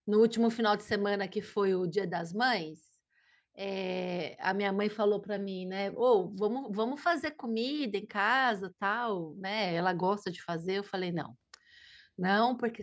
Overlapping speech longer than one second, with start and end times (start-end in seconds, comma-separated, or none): none